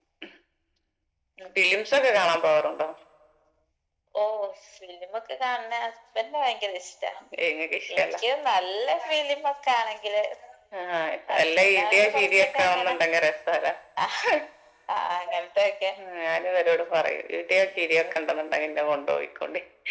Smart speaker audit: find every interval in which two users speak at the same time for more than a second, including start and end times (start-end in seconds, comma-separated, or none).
11.4-12.9